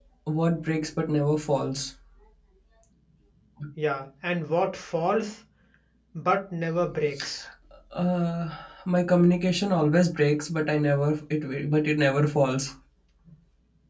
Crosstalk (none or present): none